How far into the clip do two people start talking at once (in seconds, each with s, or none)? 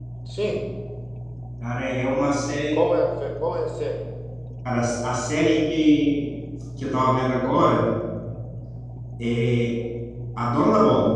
none